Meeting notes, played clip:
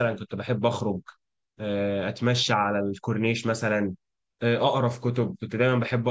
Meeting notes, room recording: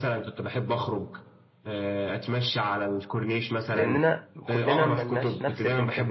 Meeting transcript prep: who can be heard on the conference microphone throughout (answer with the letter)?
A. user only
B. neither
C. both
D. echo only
C